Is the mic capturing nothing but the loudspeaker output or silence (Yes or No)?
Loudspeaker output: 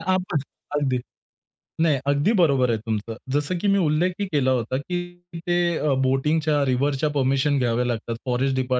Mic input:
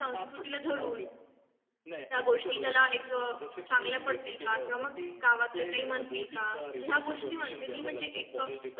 No